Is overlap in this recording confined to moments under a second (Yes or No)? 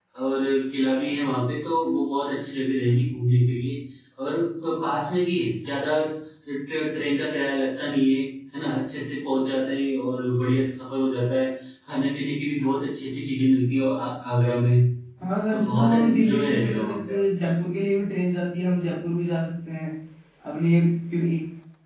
No